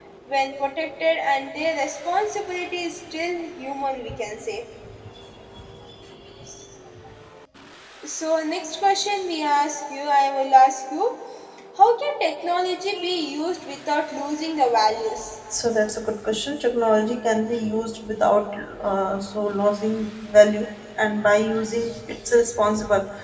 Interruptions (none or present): none